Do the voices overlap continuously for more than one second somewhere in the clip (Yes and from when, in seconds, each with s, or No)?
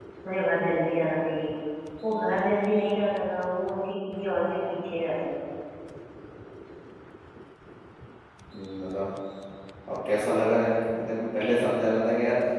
No